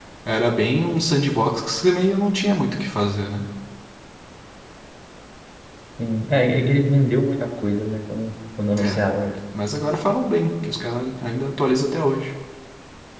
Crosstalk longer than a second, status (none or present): none